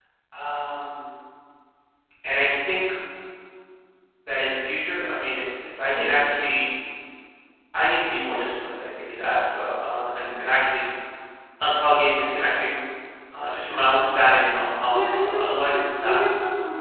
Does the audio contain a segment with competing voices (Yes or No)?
Yes